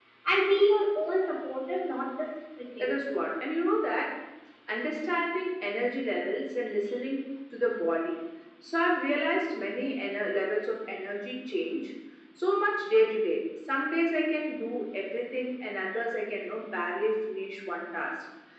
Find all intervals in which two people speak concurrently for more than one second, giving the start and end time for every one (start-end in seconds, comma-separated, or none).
none